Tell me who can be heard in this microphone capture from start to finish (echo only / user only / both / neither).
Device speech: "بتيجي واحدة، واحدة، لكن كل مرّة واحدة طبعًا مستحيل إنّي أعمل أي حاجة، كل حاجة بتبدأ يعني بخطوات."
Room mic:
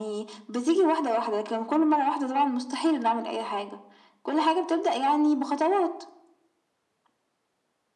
echo only